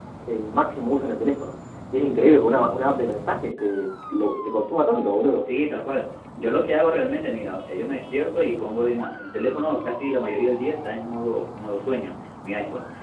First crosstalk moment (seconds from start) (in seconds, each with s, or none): none